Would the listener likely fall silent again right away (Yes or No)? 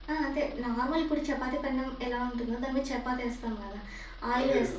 Yes